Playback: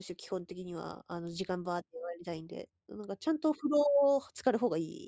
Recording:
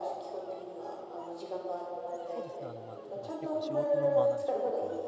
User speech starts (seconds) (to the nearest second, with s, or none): 2 s